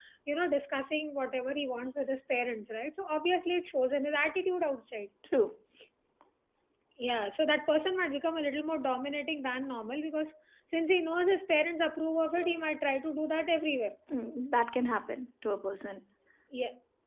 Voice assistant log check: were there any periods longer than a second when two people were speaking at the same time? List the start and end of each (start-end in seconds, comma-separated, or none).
none